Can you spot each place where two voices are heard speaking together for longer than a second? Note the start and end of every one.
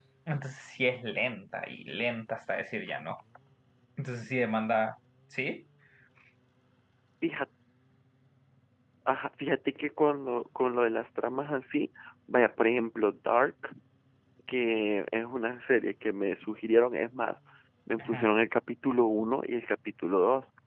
none

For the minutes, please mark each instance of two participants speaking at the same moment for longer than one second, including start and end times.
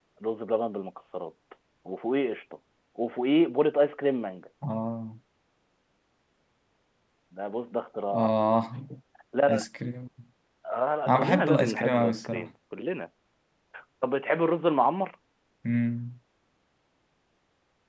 11.1-12.5

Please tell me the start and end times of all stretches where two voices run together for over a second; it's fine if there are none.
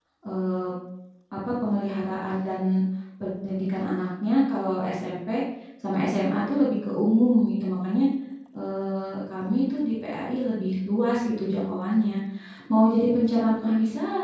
none

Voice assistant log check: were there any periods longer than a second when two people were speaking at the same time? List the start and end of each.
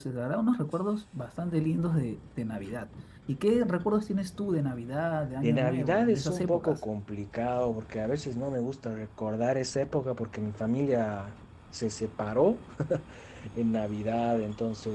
5.4-6.8

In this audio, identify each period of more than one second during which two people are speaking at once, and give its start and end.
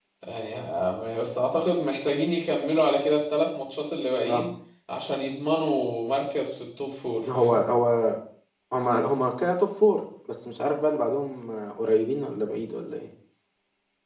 none

